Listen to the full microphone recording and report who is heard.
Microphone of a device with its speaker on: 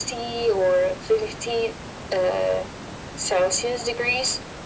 echo only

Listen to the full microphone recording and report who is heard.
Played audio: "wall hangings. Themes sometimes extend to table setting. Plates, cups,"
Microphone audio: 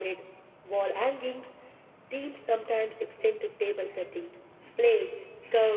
echo only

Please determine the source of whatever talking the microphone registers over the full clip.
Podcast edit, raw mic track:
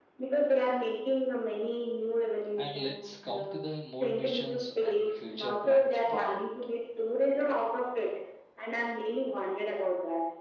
both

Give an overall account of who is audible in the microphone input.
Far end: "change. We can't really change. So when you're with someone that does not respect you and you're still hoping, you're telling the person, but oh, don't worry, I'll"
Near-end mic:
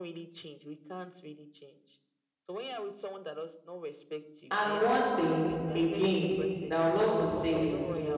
both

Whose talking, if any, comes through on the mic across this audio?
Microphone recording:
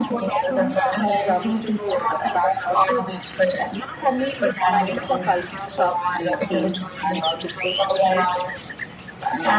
echo only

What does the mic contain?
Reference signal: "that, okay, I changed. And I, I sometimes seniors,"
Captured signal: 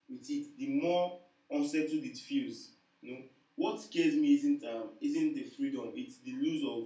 user only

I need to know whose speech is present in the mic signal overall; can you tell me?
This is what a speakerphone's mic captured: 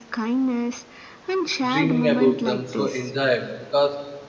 both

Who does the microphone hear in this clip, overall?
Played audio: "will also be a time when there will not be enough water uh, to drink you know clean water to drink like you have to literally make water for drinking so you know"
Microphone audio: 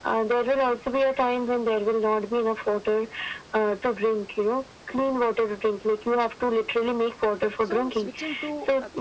both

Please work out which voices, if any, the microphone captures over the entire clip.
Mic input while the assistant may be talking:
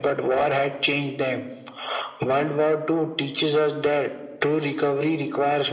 echo only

